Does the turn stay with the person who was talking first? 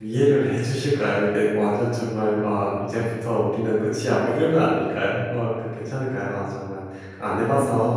No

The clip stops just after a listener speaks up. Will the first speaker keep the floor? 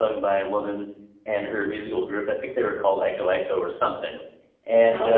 Yes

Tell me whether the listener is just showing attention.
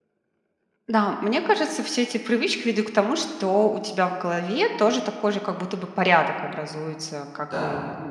Yes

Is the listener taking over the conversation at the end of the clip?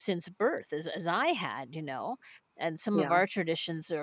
No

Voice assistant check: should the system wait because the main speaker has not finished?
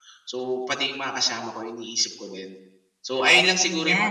No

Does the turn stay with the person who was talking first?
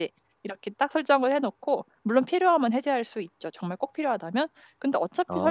Yes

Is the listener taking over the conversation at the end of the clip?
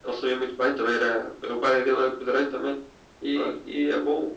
No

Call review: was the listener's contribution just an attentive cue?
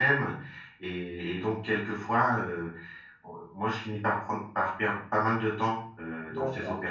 No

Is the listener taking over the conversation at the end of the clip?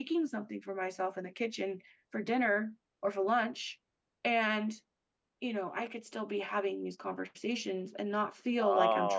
Yes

